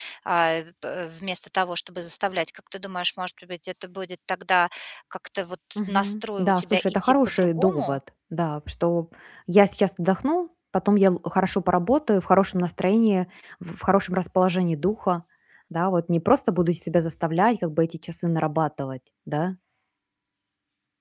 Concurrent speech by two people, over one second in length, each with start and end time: 5.8-8.0

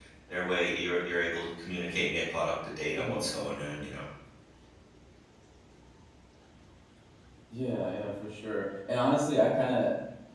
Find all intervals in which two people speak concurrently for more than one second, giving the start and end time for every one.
none

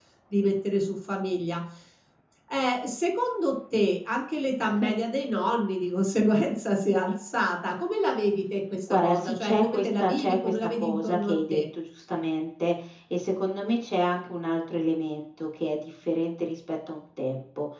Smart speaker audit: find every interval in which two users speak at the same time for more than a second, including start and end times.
8.9-11.6

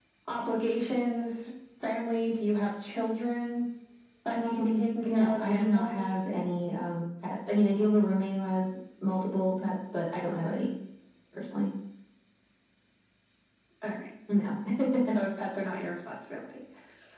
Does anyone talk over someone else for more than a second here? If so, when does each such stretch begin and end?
4.3-6.0

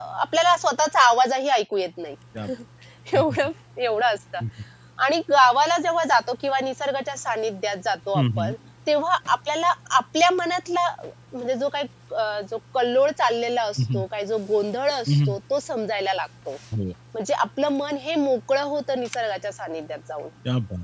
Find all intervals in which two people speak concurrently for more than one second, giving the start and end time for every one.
none

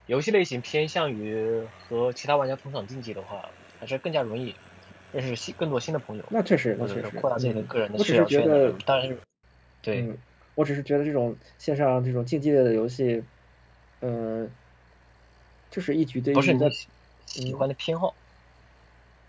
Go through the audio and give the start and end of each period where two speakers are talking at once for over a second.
6.8-8.8

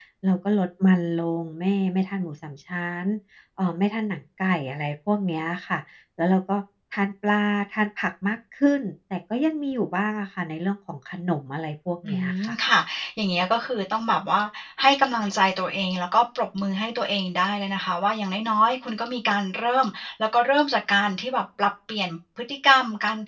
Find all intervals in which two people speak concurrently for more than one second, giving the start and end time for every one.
none

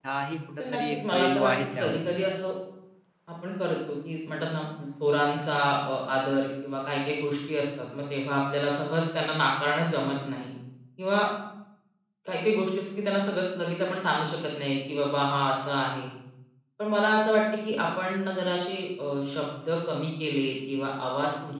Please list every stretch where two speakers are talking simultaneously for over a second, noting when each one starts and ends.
0.6-2.0

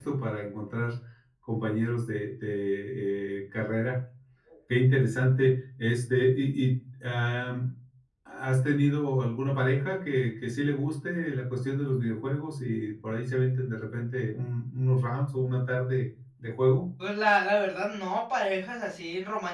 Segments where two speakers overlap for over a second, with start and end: none

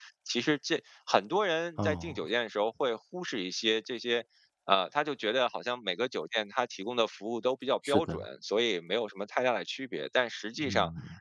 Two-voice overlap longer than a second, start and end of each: none

